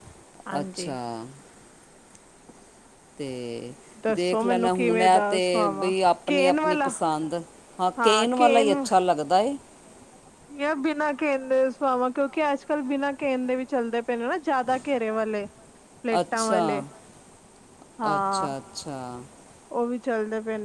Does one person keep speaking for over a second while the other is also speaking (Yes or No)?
Yes